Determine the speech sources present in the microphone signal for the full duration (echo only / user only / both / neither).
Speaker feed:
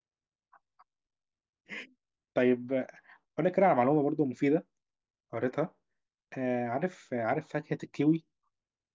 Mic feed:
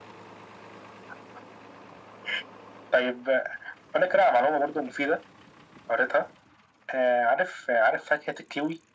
echo only